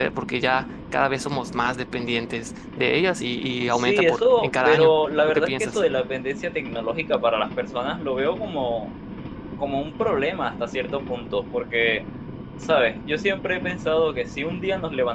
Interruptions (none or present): present